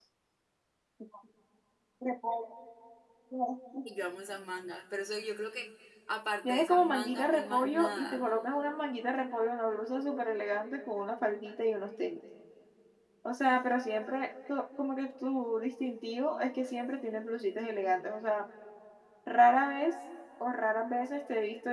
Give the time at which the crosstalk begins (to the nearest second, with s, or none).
6 s